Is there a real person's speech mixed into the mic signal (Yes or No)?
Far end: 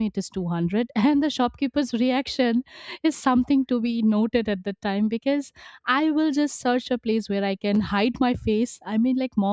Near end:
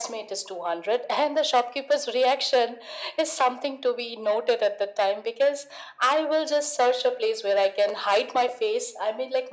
No